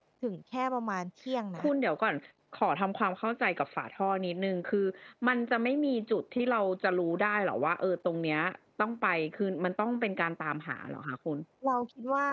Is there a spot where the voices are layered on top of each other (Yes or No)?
No